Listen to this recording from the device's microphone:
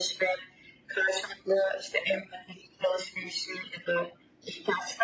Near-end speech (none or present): none